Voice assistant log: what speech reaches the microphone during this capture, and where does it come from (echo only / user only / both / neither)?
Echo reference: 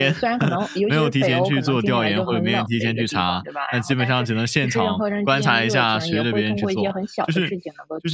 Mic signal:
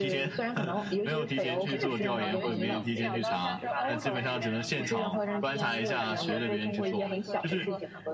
both